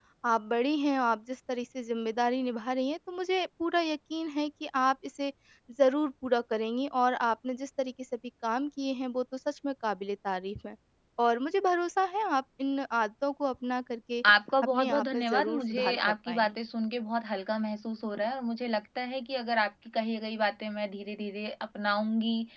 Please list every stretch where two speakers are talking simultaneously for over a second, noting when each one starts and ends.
14.6-16.6

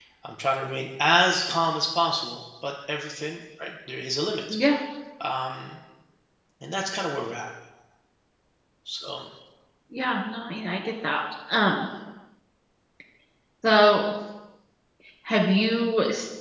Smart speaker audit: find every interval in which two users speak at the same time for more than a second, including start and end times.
none

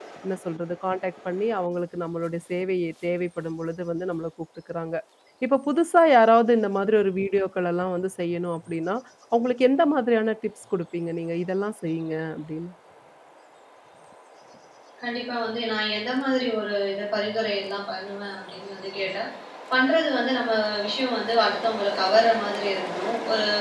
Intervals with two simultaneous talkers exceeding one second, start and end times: none

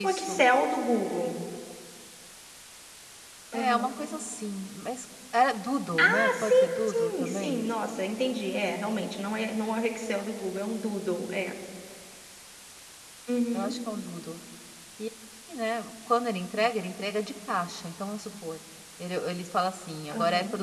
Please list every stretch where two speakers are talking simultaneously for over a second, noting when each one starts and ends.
6.0-7.7

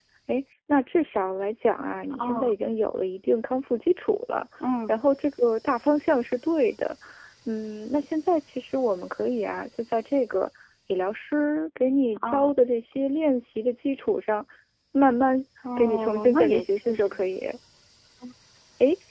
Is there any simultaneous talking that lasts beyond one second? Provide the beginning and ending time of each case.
15.8-17.3

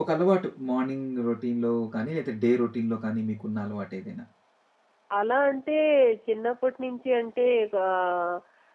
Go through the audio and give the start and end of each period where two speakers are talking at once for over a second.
none

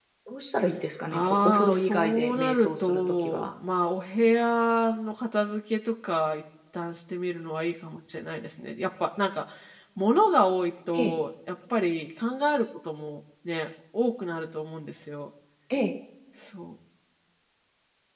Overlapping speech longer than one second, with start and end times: 1.1-3.5

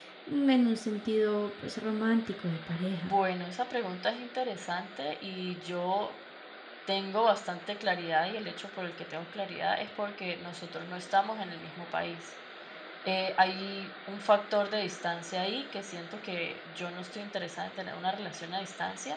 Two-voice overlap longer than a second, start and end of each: none

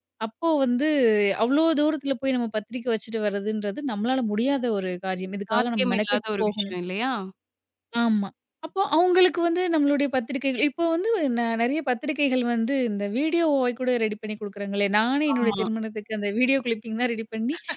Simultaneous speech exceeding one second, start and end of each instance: 5.5-6.7

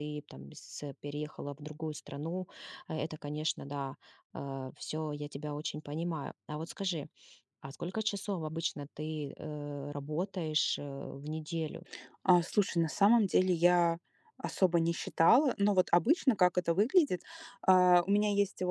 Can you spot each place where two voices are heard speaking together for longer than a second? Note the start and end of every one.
none

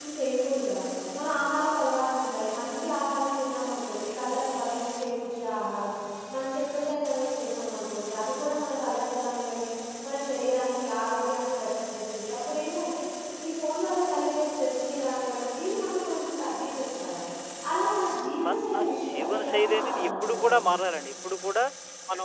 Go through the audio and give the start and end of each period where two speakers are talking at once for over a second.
18.4-20.5

